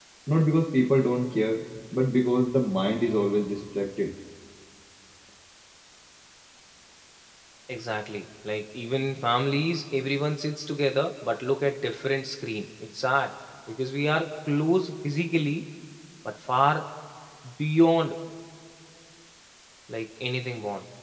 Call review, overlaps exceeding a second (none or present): none